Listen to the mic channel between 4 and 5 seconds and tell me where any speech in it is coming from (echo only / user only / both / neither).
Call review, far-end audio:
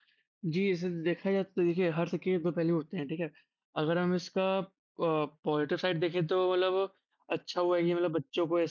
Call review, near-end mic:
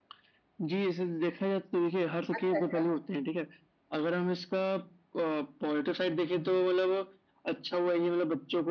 echo only